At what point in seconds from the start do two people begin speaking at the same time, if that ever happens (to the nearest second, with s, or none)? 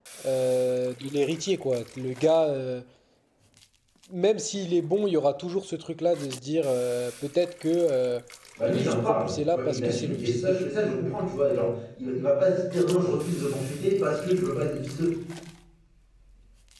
9 s